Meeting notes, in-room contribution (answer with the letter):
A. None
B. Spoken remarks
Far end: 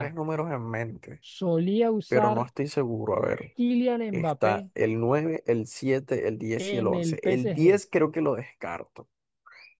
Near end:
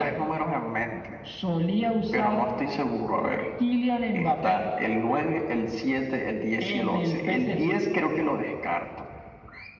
A